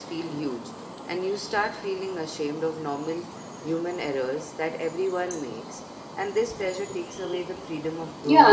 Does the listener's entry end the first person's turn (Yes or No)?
Yes